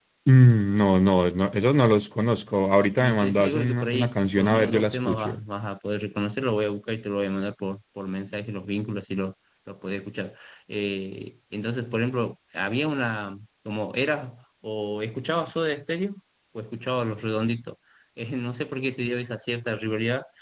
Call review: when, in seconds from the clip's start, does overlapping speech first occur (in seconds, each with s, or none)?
3.0 s